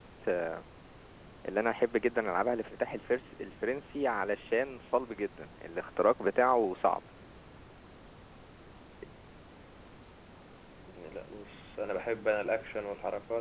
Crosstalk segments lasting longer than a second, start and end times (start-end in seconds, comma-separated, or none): none